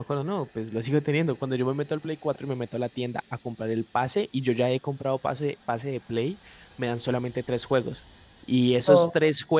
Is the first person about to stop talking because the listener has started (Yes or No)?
No